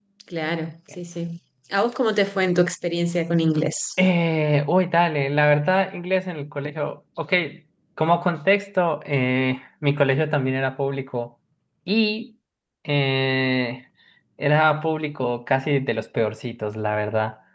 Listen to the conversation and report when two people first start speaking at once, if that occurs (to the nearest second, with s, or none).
none